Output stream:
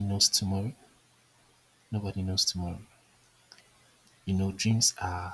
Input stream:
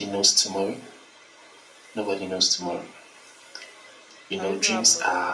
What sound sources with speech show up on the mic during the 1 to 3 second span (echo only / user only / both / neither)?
echo only